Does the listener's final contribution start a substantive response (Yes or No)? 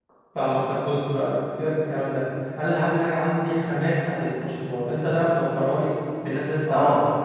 Yes